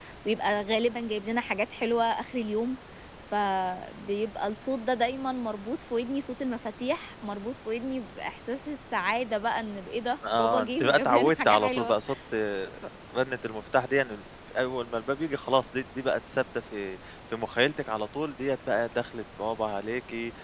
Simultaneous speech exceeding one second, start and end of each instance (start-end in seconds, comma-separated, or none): 10.3-11.9